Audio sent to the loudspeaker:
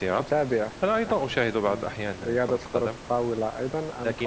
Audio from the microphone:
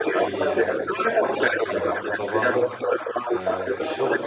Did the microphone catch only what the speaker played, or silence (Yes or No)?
No